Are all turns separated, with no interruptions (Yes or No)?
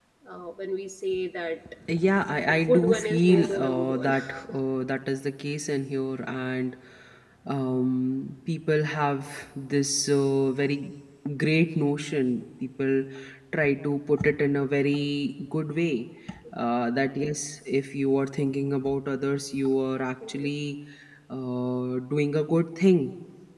No